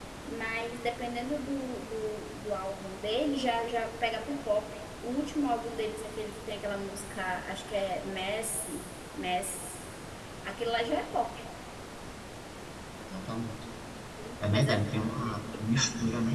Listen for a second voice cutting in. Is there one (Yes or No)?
Yes